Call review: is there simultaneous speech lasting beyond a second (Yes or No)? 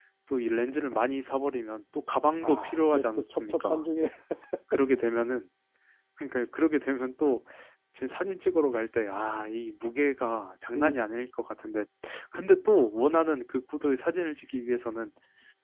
Yes